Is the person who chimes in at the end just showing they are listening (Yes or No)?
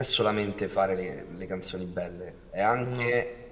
Yes